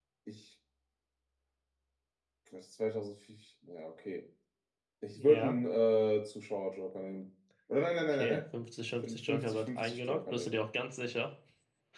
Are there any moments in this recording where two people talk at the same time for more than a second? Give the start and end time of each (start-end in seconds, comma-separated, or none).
9.0-10.5